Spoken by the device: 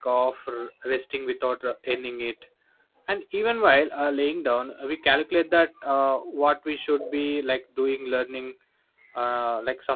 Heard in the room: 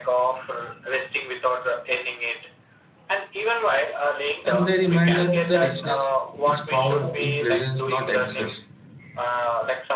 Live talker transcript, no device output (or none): and they remind us the richness is found in presence, not excess.